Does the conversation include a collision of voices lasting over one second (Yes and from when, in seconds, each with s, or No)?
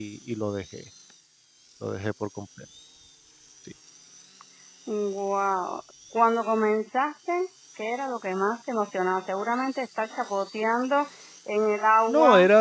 No